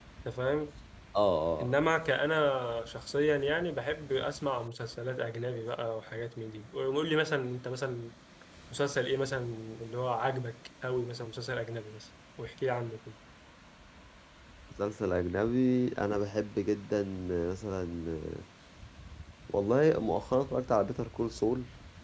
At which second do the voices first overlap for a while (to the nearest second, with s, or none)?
none